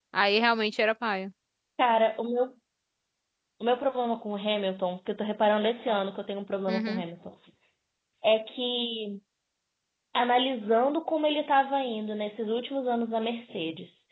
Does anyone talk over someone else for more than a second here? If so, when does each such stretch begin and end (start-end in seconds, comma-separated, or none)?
none